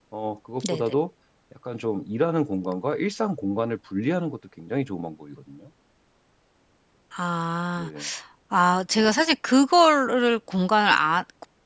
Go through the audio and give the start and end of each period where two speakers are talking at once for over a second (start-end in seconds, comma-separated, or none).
none